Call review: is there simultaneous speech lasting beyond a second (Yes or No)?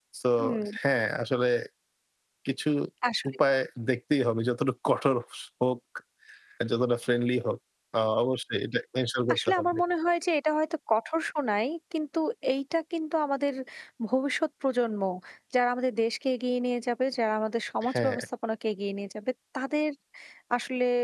No